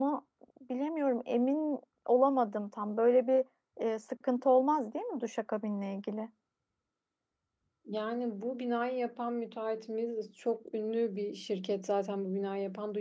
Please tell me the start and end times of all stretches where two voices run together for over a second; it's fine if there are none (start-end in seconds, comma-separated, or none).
none